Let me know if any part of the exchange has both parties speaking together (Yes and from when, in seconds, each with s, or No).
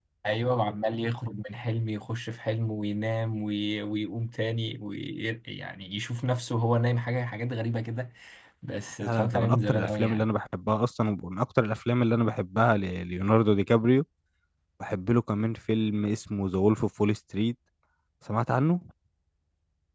Yes, from 9.0 s